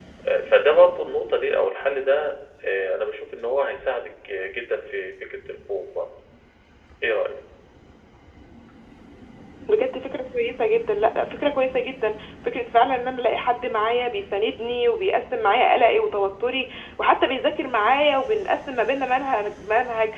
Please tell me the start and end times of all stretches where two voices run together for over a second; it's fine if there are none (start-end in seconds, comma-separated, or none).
none